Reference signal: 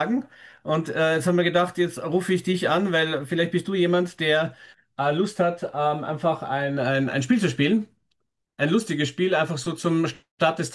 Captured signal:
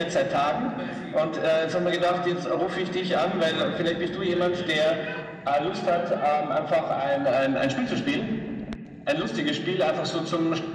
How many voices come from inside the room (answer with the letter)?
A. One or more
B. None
A